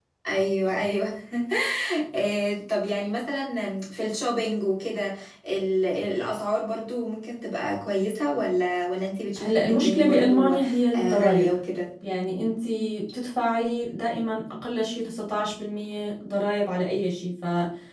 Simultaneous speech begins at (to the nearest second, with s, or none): 9 s